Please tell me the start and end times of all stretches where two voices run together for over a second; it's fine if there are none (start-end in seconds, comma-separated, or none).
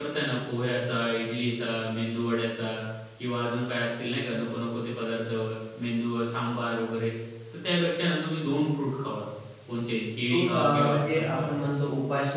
10.3-11.5